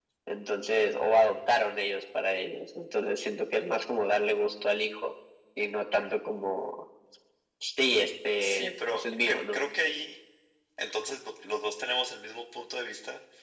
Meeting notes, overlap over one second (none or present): present